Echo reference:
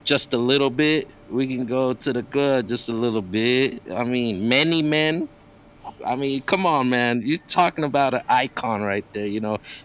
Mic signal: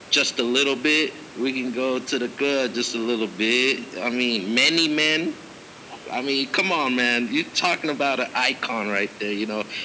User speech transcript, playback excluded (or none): none